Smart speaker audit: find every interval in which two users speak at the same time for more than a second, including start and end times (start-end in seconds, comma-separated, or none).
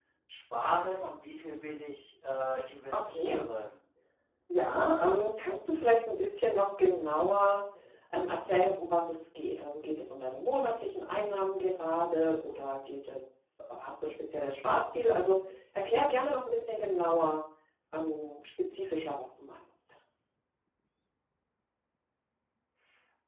none